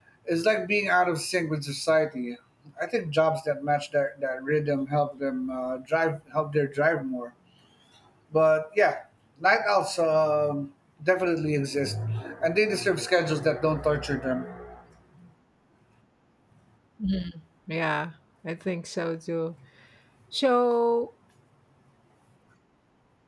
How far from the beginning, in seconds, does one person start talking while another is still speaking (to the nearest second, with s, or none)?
none